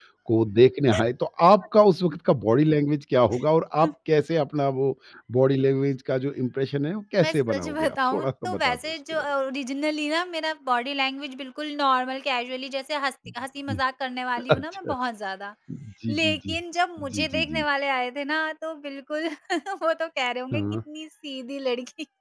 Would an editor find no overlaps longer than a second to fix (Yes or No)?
No